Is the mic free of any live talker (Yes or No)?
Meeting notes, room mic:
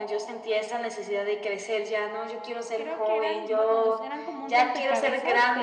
No